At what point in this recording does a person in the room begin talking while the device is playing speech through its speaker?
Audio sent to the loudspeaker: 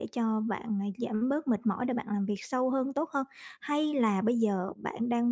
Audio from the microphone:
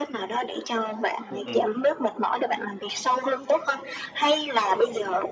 1 s

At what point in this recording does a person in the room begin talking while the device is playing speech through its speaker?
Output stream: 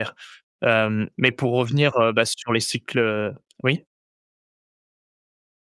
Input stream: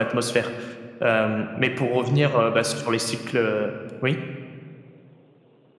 none

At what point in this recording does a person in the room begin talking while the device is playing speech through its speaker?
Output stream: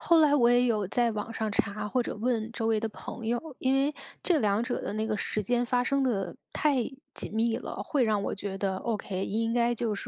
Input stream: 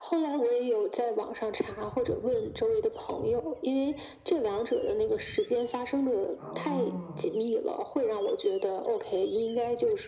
6 s

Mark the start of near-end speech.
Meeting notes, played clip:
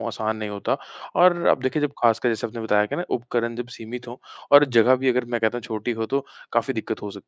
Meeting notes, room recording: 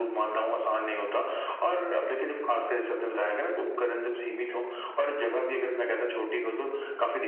none

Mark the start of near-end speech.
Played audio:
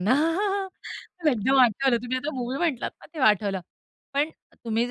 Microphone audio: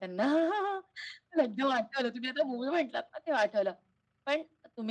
none

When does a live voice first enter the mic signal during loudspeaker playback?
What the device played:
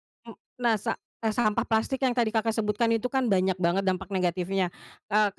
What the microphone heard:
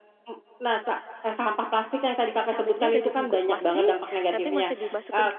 3 s

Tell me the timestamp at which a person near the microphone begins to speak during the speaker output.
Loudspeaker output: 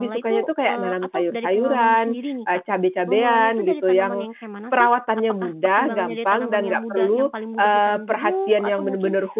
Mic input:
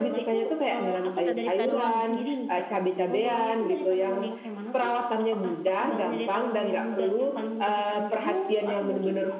1 s

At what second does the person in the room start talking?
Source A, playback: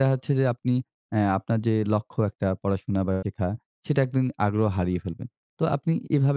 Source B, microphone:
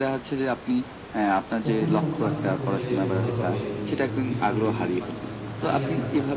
2 s

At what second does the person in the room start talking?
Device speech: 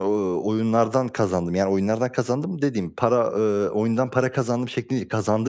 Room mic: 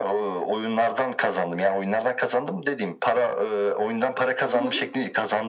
4 s

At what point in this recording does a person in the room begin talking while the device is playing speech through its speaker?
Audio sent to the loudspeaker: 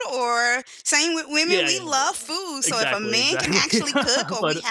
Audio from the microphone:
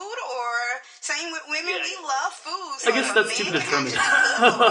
3 s

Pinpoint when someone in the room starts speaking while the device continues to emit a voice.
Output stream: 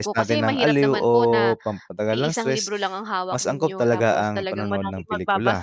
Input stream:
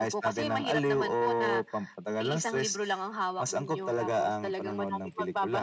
none

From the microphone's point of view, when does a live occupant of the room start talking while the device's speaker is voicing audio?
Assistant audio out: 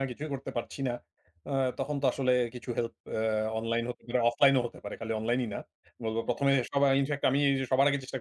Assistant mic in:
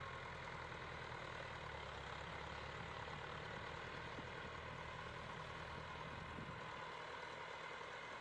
none

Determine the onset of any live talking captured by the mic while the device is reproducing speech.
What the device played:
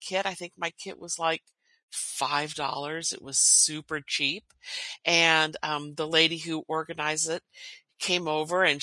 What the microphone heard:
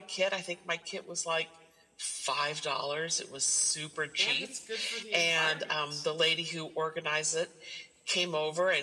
4 s

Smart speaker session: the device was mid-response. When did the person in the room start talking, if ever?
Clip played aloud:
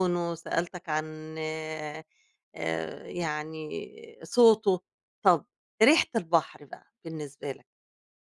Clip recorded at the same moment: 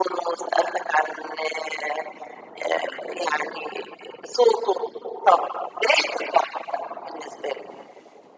none

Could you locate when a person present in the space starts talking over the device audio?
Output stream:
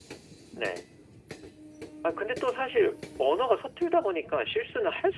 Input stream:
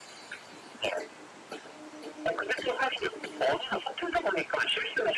none

